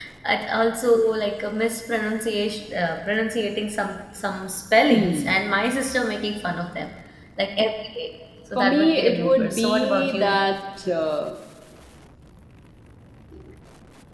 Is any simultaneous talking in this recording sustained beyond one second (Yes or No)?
Yes